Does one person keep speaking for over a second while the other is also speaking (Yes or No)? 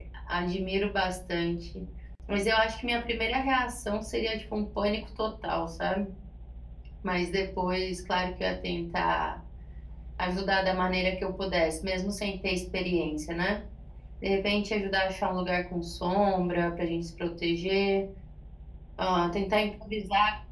No